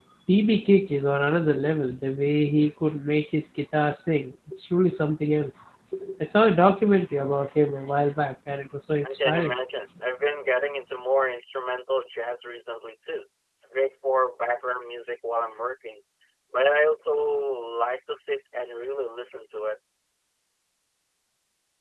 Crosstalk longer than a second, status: none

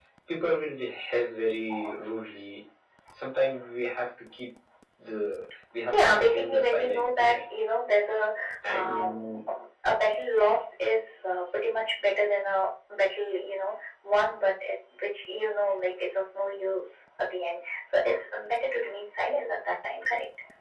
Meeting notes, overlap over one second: present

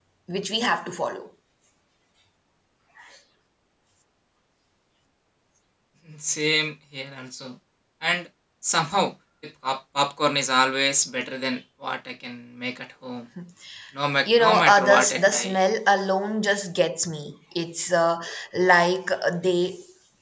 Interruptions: present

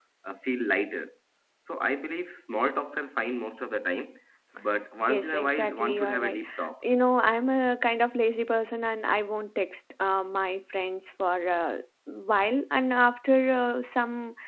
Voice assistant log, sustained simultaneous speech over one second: present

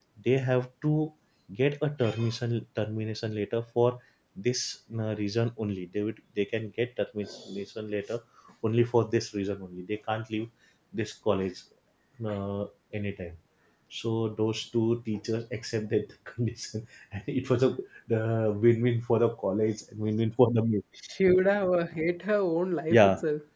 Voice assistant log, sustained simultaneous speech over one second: none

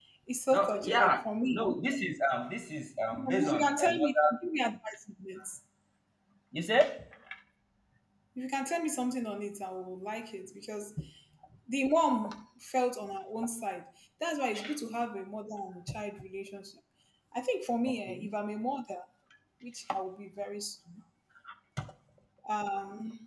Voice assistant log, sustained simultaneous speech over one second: present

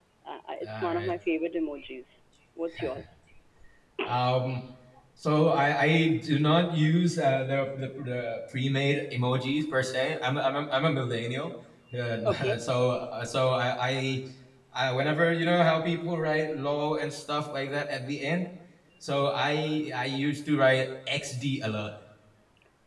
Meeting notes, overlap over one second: none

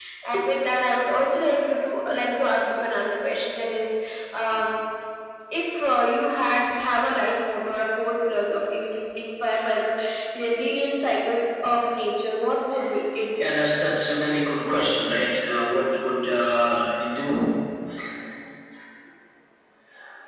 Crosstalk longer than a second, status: none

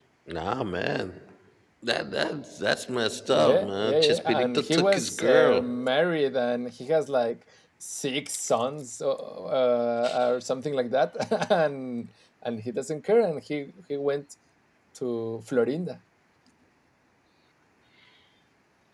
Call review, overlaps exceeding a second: present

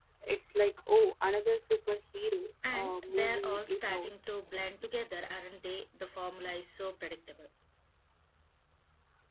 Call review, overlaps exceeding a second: present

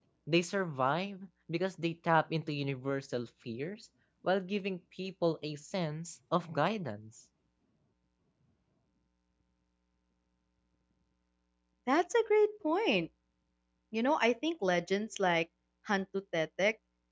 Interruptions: none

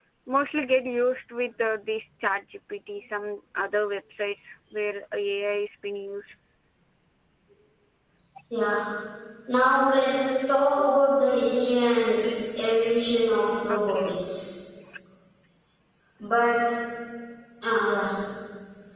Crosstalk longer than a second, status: none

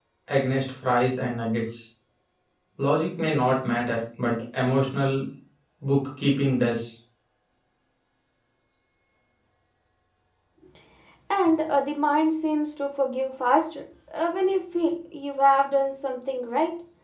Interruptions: none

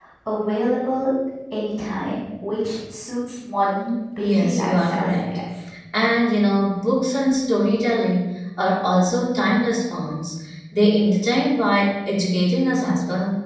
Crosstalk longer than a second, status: present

